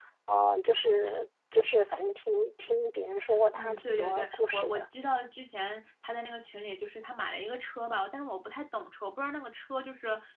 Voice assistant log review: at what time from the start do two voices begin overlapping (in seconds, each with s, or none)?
3.3 s